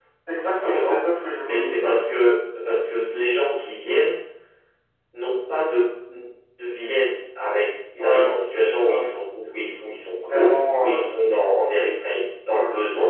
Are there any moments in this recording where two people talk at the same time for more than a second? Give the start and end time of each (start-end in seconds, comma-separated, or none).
10.1-11.4